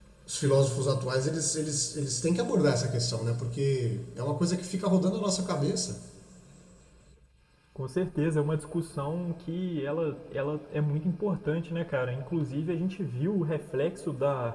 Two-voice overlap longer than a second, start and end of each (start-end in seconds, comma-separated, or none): none